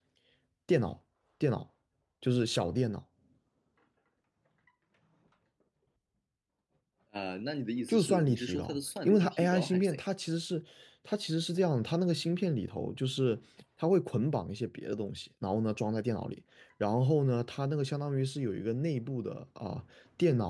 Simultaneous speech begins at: 8 s

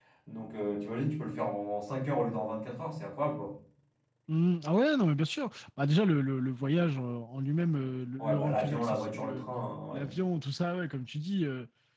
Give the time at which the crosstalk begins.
8 s

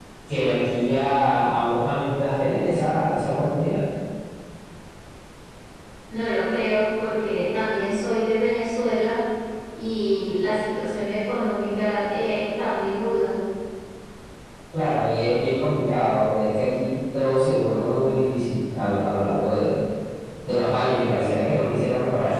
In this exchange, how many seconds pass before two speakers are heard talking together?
none

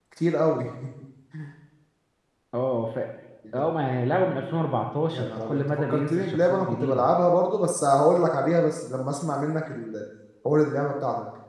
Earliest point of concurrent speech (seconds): 5 s

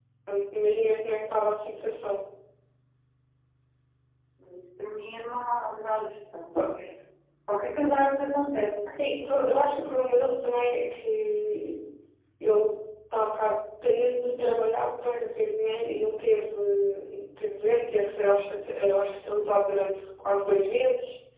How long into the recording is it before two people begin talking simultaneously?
none

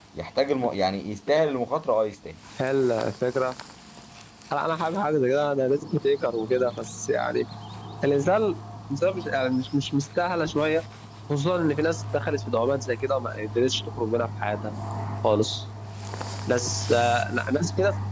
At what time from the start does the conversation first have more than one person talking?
none

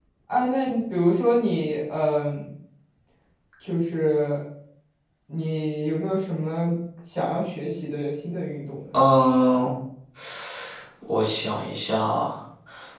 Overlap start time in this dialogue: none

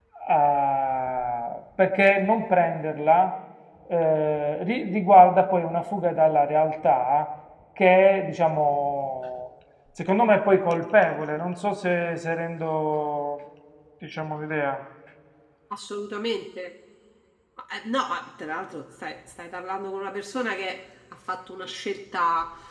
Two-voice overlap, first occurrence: none

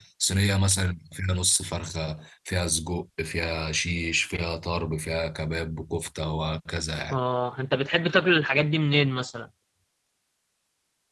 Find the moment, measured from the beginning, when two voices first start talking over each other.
none

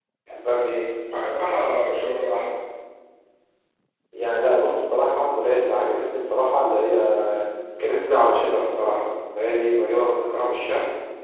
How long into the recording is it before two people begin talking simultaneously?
none

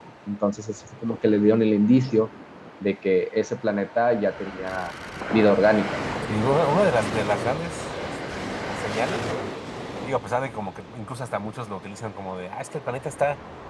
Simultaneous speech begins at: none

